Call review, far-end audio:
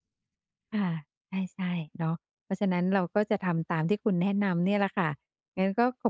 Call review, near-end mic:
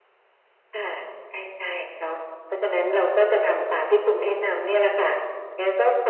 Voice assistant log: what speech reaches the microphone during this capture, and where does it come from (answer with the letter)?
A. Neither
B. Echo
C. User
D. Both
B